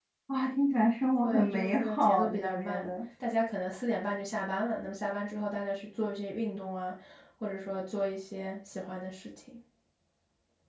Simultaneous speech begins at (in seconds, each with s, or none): 1.2 s